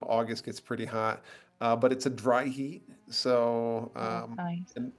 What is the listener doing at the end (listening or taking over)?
listening